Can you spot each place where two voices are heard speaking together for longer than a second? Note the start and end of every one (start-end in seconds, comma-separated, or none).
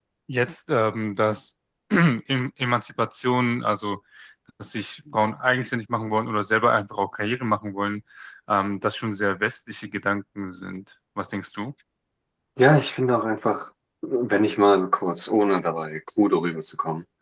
none